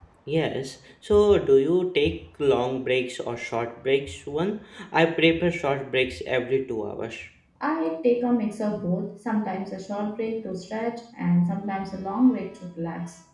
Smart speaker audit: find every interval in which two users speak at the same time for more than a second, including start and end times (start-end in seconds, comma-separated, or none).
none